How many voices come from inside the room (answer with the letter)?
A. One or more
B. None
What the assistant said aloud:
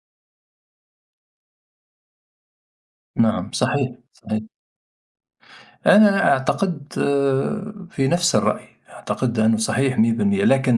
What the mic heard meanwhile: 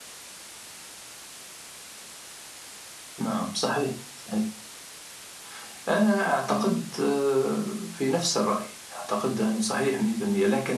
A